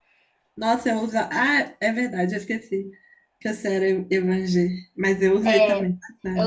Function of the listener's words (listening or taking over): taking over